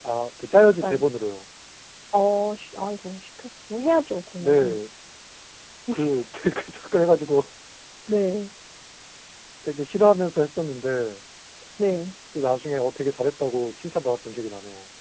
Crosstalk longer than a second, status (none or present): none